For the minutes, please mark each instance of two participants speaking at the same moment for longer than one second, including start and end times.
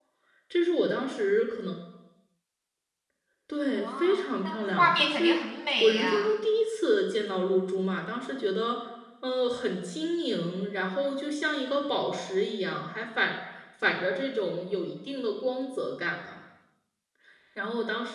3.7-5.4

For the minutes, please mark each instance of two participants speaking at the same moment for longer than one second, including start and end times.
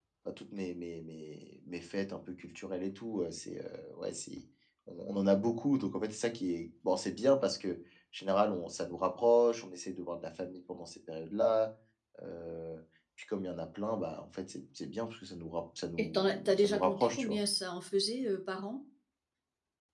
16.0-17.4

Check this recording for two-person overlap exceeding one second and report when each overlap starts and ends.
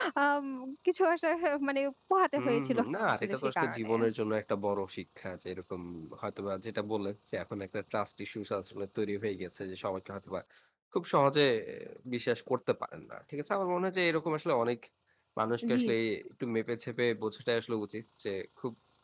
2.4-3.9

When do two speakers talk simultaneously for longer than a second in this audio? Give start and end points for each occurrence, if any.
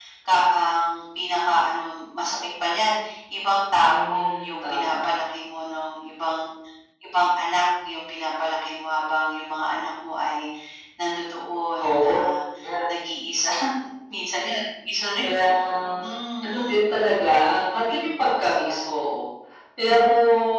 3.8-5.0, 17.5-18.9

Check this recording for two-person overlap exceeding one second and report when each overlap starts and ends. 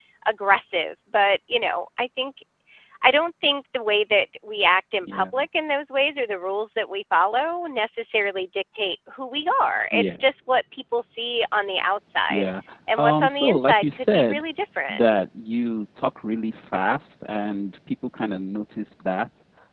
12.9-14.4

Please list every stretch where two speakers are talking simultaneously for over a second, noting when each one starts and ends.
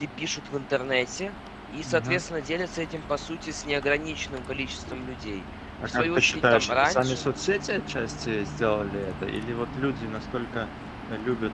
5.9-7.3

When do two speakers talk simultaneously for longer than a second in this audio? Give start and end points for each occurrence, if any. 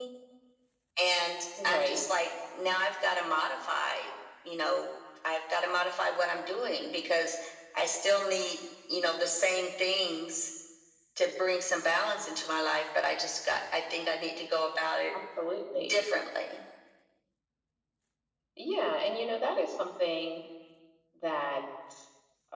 none

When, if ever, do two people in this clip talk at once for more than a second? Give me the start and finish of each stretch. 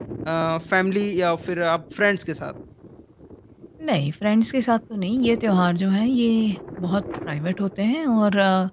none

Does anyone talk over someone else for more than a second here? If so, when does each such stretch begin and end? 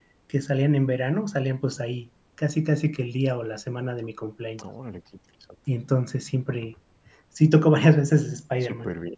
none

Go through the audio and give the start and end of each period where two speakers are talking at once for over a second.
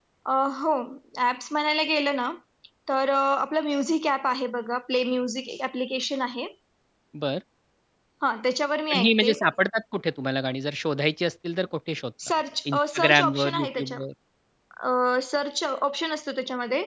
12.7-14.0

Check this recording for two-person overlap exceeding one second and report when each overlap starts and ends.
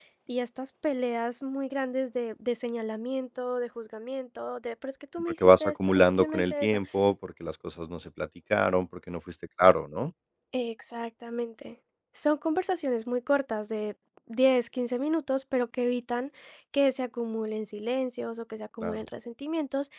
5.2-6.7

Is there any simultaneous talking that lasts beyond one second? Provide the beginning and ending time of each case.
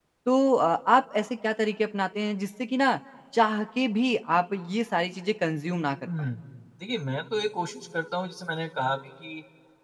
none

